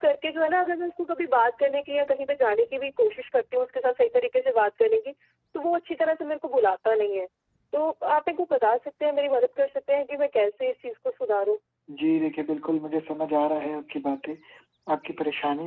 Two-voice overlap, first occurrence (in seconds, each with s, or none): none